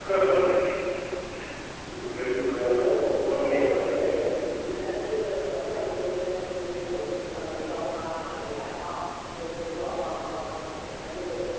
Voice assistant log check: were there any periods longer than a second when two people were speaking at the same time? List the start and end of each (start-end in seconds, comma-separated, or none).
2.5-4.2